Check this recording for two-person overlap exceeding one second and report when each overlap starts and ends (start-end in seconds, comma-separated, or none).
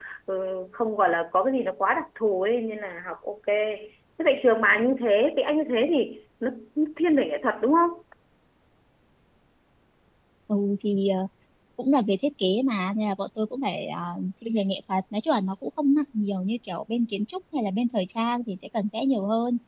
none